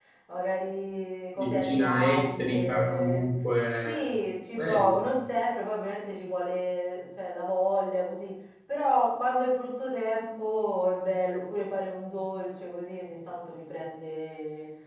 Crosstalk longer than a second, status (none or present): present